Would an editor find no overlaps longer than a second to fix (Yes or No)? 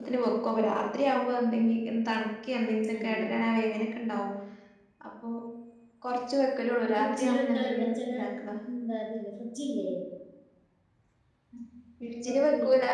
No